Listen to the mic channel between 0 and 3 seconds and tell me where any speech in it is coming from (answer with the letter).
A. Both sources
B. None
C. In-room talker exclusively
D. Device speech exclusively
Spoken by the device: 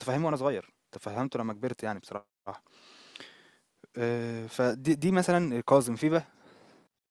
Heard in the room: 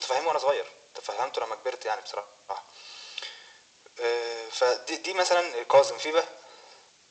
D